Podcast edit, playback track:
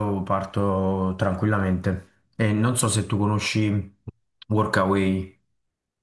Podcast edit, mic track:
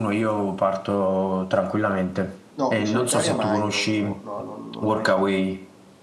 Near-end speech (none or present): present